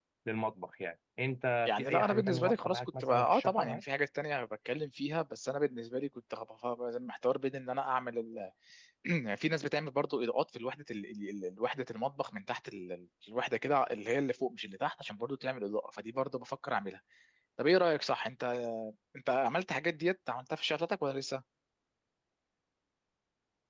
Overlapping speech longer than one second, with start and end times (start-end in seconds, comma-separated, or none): 1.6-3.8